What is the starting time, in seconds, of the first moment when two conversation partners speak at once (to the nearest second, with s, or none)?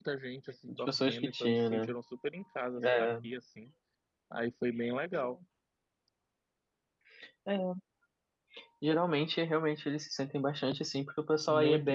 1 s